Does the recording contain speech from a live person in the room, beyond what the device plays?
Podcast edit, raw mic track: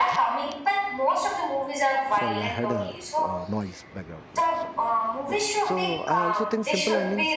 Yes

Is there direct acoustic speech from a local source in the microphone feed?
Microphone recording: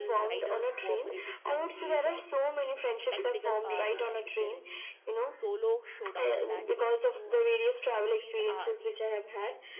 Yes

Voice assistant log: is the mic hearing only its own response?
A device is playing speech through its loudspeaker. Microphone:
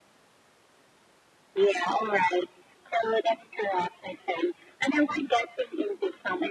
Yes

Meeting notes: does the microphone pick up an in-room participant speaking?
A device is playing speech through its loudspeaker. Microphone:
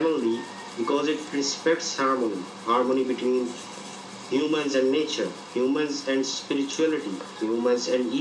No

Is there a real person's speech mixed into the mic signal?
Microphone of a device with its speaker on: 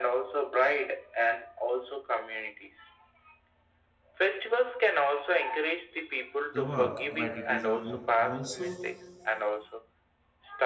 Yes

